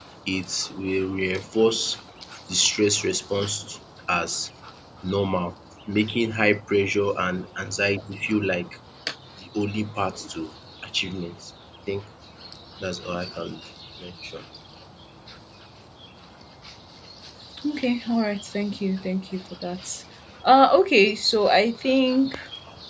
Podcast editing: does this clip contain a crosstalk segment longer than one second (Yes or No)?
No